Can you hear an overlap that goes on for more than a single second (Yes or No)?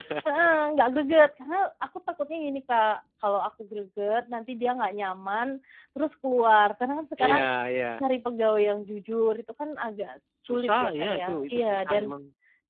Yes